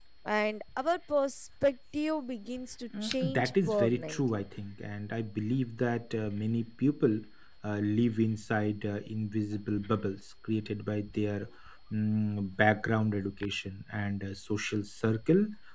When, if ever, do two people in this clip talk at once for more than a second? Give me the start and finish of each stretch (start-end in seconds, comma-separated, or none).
3.0-4.4